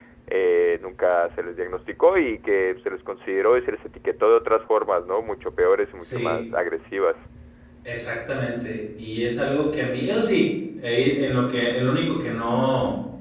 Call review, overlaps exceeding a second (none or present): none